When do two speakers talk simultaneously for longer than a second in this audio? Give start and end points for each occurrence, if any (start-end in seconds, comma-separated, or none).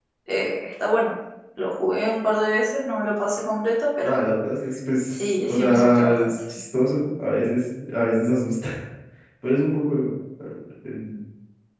5.1-6.4